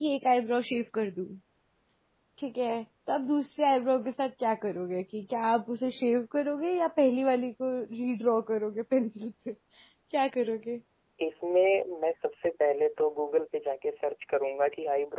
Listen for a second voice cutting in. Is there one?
No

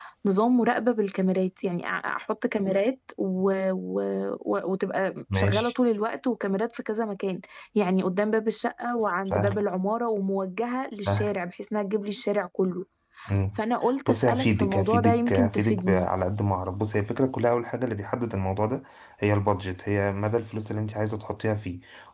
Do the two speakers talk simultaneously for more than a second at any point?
Yes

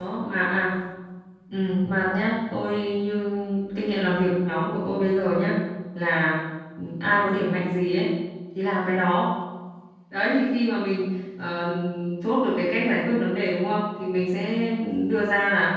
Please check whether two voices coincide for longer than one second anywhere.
No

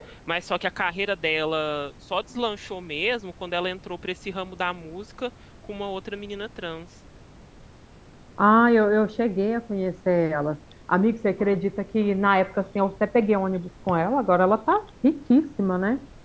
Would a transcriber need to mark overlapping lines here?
No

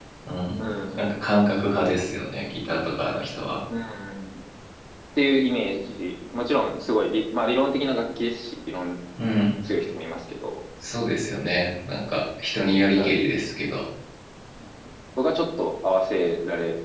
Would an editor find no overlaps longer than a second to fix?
Yes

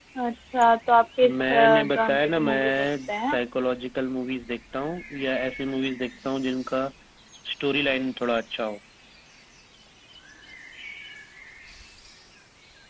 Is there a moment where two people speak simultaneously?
Yes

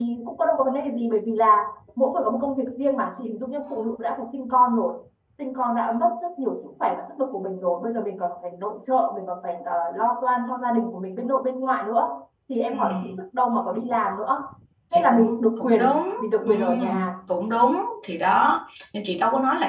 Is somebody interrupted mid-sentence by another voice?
Yes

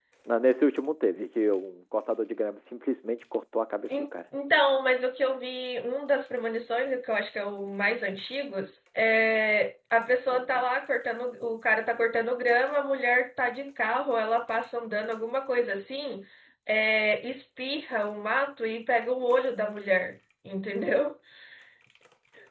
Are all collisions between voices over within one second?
Yes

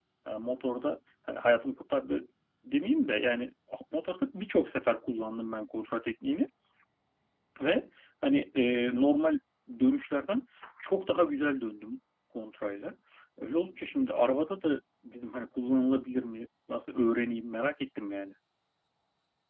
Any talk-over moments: No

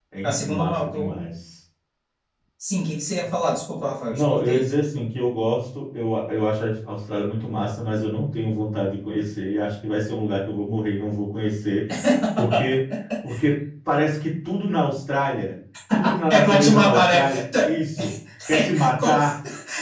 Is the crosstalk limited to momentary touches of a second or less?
No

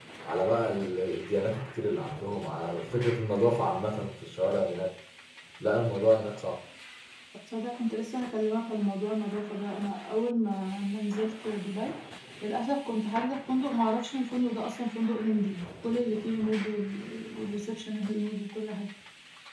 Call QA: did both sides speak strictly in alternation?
Yes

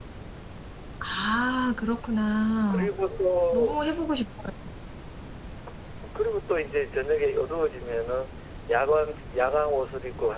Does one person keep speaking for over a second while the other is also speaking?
No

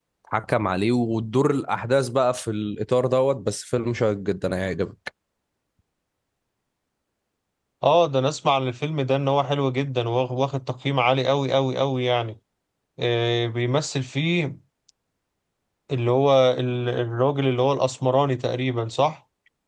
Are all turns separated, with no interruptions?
Yes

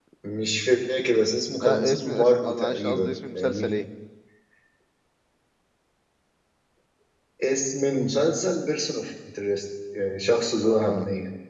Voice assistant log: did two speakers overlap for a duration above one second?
Yes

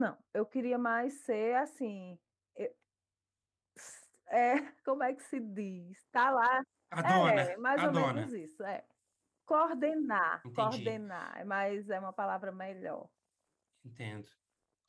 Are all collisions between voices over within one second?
No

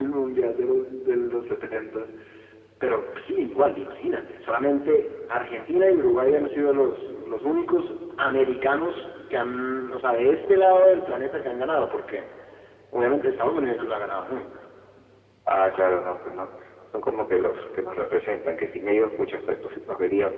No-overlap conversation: Yes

